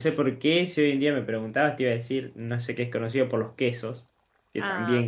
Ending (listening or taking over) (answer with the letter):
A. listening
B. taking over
B